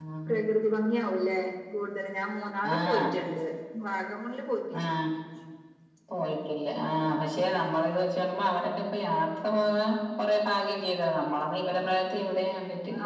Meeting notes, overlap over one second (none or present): none